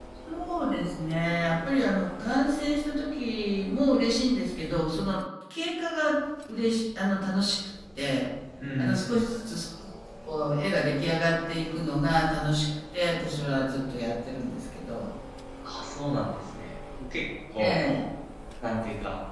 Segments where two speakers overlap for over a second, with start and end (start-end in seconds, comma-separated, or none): none